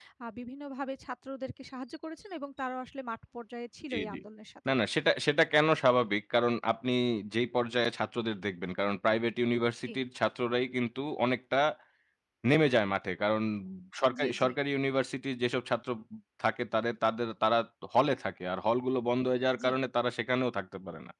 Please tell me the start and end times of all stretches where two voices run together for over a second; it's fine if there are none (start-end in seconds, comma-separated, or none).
none